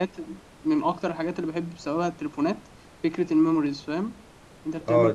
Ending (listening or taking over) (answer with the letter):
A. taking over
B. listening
A